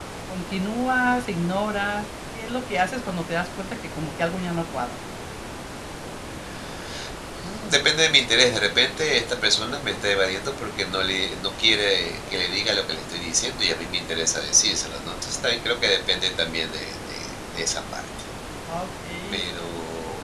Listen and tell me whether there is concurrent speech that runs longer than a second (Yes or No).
No